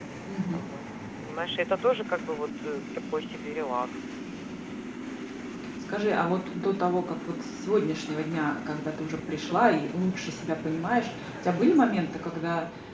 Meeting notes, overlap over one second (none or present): none